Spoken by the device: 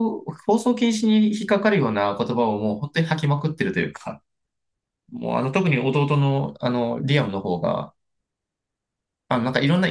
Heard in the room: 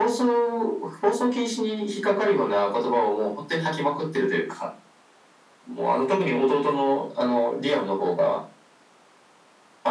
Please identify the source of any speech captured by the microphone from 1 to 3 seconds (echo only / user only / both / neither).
echo only